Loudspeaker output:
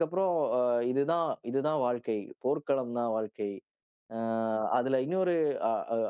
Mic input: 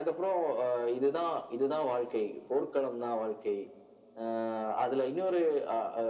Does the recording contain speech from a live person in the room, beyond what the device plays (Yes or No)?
No